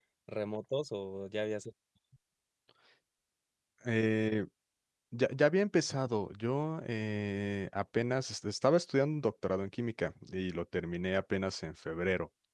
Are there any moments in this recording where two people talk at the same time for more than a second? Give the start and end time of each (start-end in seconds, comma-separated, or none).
none